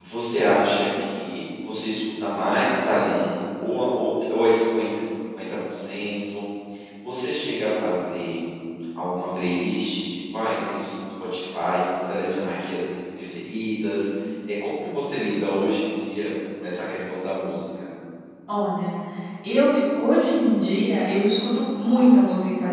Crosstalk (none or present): none